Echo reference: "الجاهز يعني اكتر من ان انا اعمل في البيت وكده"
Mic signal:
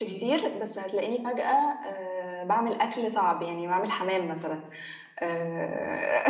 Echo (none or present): none